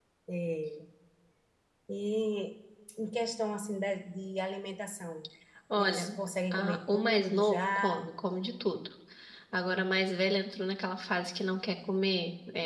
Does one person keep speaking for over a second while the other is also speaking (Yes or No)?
Yes